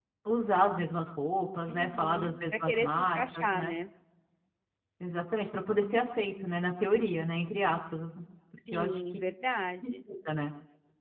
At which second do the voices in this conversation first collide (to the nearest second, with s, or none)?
2 s